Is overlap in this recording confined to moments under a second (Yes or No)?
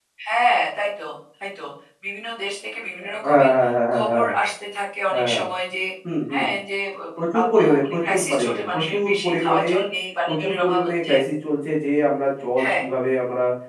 No